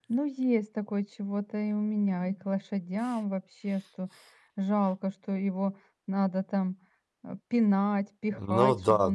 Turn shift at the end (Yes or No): Yes